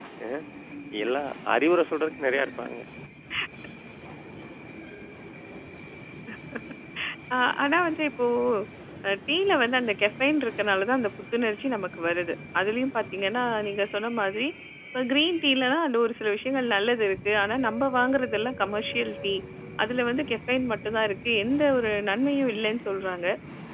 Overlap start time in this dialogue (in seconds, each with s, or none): none